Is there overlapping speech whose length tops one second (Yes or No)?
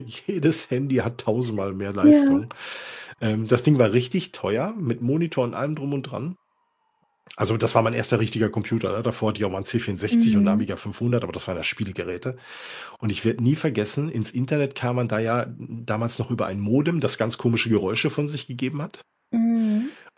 No